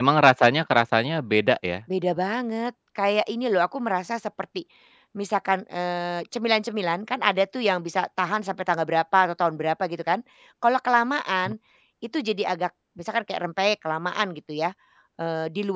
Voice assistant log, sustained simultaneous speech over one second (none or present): none